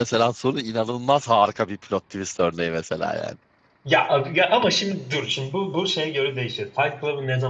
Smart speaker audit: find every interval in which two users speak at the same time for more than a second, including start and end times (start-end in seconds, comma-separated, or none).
none